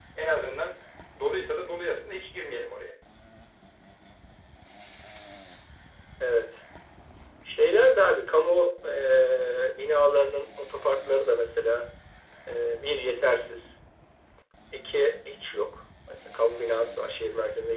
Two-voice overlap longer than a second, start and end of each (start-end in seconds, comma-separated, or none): none